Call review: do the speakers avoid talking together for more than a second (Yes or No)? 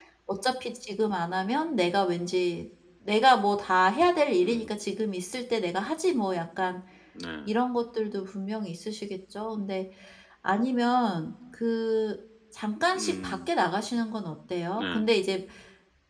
Yes